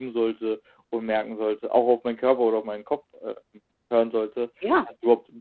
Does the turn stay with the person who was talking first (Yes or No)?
Yes